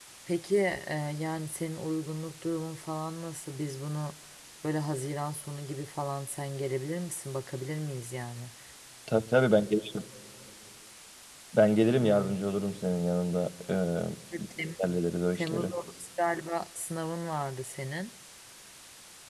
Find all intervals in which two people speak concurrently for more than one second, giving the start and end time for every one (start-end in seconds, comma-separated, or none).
none